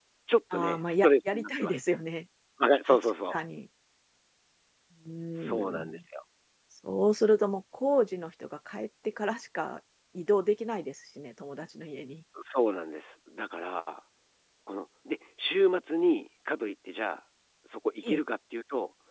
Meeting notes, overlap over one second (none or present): present